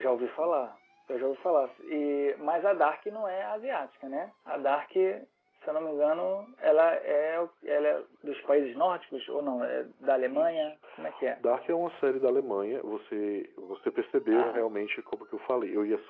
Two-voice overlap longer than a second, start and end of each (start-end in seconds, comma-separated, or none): none